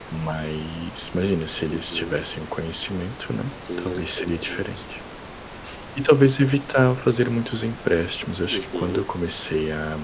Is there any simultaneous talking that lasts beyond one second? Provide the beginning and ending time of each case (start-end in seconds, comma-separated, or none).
3.5-4.7